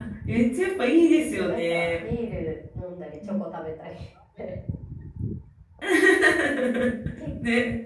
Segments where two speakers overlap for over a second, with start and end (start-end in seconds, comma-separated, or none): 0.6-2.0